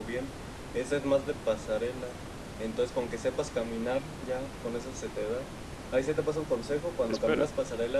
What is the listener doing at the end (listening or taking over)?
listening